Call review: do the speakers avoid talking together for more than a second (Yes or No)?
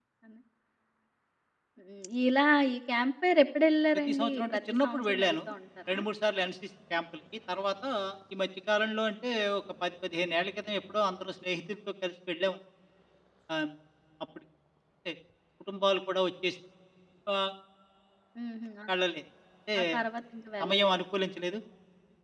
No